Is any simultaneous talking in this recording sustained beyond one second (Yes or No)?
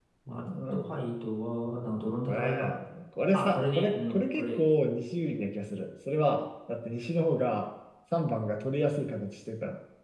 Yes